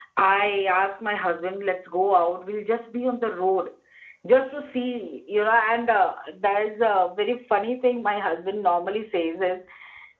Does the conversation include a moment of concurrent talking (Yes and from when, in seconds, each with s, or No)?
No